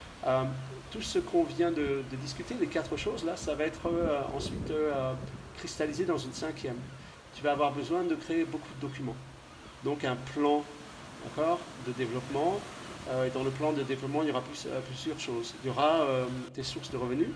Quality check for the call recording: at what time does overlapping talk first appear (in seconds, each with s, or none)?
none